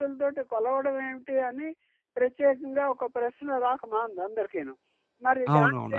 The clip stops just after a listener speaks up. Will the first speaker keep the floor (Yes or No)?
No